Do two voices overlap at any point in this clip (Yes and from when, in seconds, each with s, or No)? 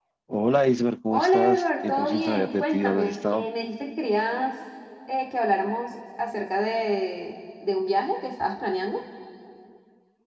Yes, from 1.1 s